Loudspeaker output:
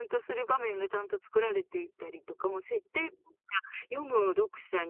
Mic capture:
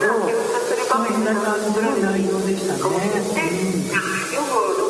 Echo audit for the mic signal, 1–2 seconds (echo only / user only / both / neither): both